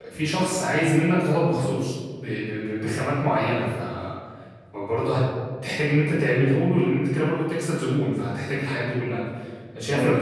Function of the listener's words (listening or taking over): listening